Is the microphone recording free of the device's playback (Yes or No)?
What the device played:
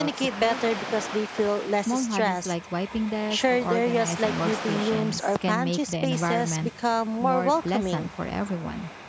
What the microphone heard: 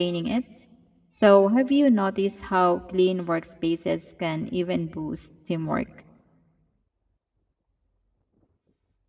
Yes